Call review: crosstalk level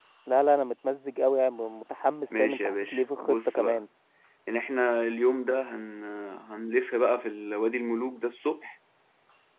present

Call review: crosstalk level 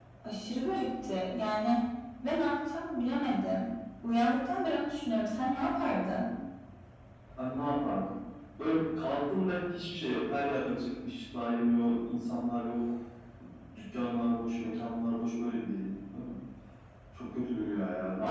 none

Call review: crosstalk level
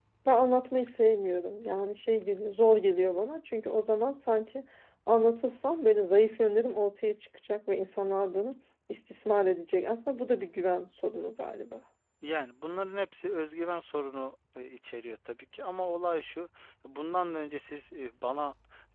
none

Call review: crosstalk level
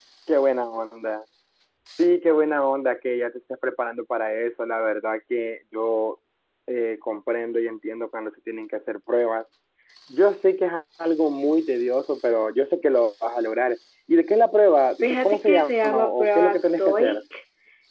present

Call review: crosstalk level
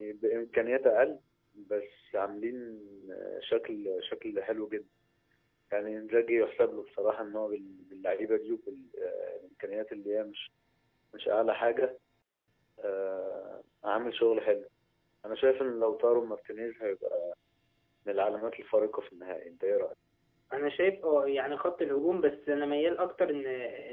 none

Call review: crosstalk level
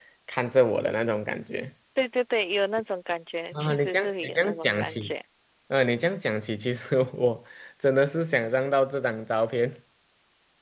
present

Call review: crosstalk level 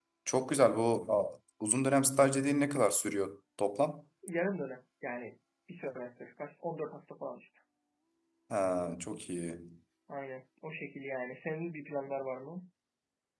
none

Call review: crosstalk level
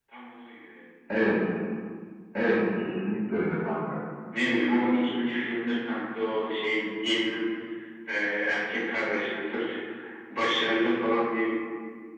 none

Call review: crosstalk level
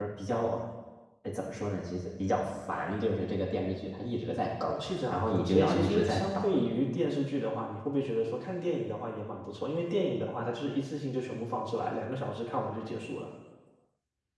present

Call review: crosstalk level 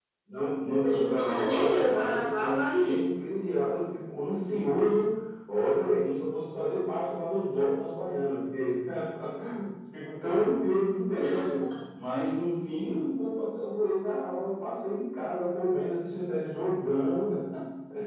present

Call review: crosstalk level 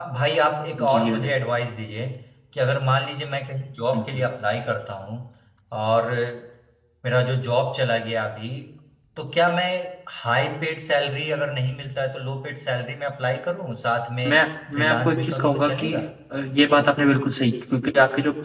present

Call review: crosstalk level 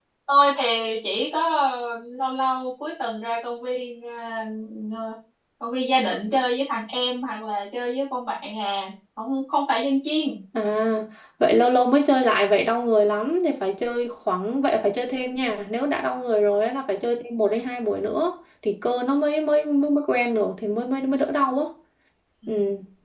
none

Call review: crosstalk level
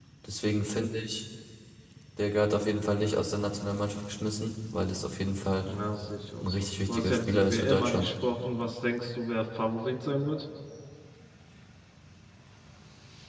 present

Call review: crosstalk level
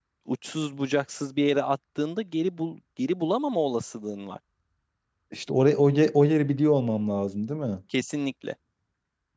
none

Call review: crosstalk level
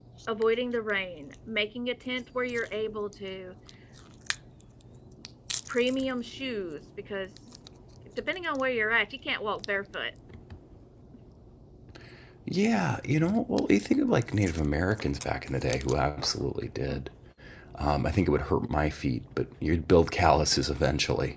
none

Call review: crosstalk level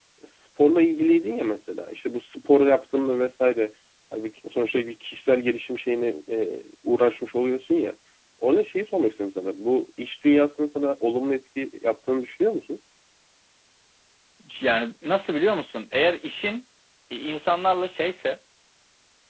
none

